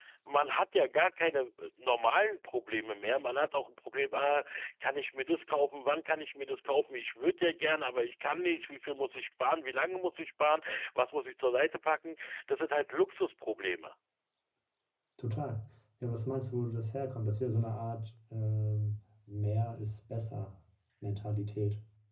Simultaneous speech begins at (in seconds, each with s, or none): none